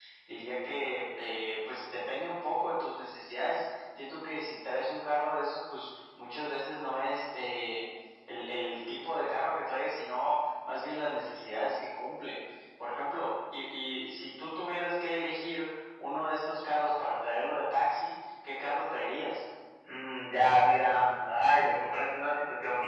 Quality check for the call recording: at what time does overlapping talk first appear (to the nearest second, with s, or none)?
none